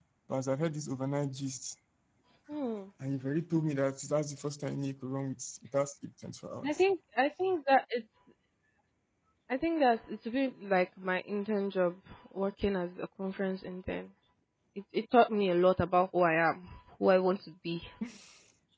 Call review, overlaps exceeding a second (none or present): none